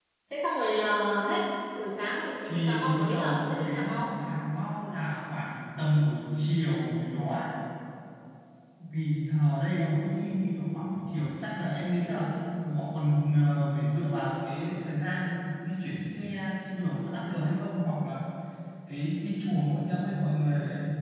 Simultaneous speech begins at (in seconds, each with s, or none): 2.4 s